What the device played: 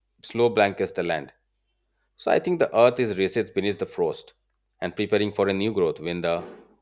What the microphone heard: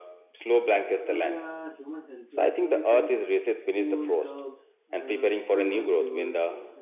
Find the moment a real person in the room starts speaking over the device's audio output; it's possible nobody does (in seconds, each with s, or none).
1.1 s